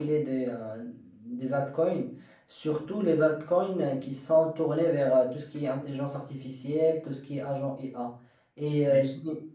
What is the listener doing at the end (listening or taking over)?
listening